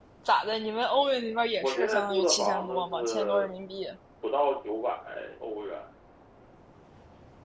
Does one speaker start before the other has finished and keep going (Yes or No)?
Yes